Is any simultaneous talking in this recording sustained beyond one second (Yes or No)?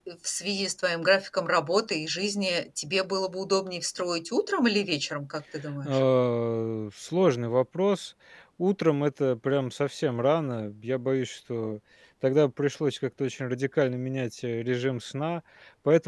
No